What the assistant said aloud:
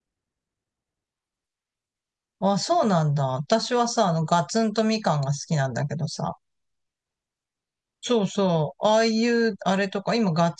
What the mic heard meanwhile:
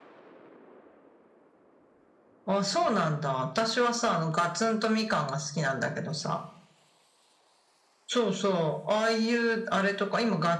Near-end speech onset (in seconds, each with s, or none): none